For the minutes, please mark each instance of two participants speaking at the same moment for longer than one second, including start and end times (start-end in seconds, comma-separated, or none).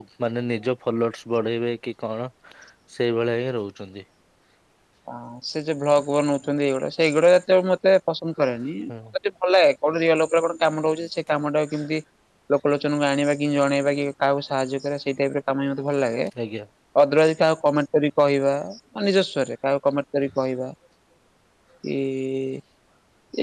none